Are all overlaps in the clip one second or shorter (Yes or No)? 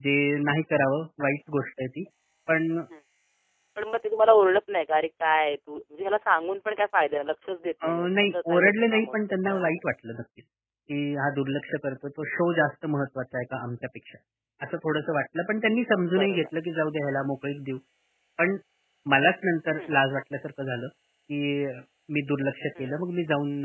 No